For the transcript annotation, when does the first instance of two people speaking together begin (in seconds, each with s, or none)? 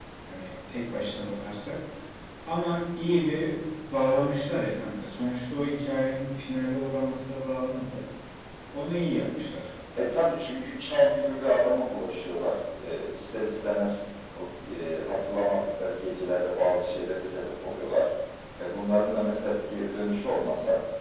none